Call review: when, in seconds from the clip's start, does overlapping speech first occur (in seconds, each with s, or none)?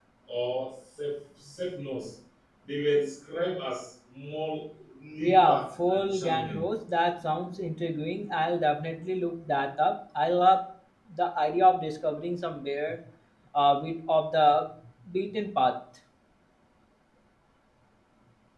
5.2 s